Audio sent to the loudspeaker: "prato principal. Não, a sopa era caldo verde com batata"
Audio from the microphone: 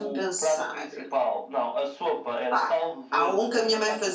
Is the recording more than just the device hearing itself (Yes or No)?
Yes